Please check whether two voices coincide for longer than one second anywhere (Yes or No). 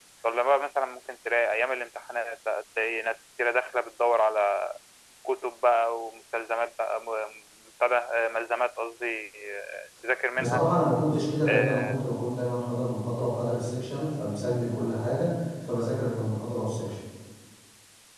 No